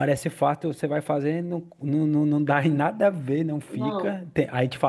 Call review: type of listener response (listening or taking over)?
listening